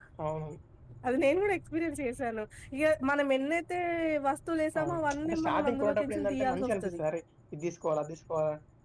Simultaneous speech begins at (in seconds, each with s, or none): 4.8 s